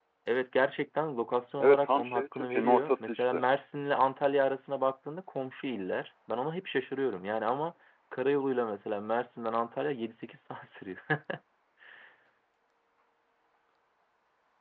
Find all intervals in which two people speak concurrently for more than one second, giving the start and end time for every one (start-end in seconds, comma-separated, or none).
1.6-3.4